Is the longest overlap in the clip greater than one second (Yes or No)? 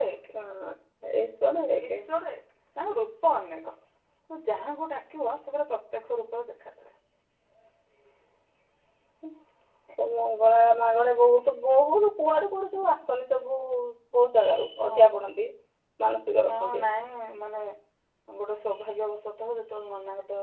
No